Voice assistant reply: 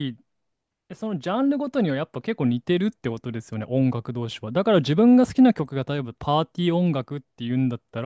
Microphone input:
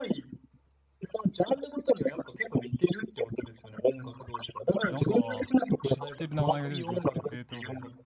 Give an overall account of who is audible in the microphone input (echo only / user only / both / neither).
both